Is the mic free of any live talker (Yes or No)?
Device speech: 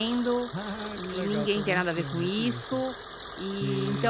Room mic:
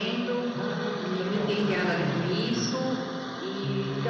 Yes